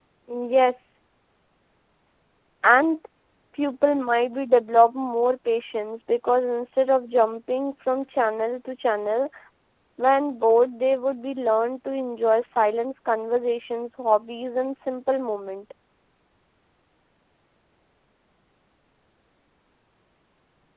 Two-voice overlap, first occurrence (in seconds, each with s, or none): none